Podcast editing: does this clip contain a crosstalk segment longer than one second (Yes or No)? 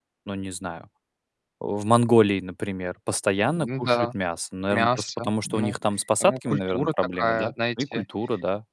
Yes